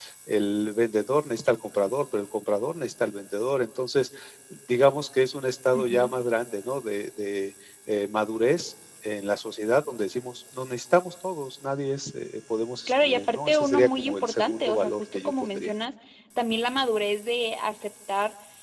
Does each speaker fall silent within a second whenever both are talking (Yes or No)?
No